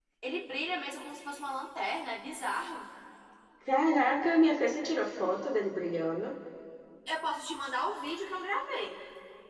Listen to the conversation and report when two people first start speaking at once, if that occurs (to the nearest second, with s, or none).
none